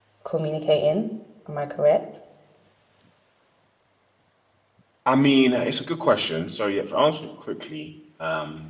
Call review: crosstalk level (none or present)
none